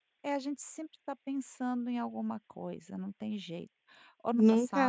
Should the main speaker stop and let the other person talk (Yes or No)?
Yes